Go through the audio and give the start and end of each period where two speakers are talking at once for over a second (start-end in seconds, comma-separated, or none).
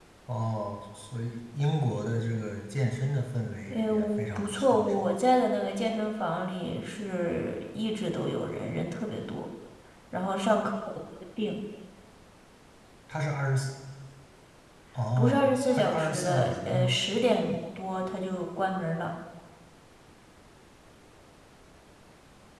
3.7-5.1, 15.2-17.0